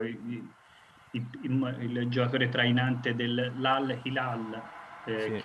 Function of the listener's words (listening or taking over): listening